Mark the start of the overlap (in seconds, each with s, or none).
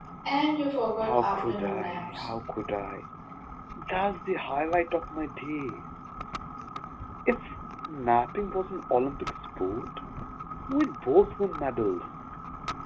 1.1 s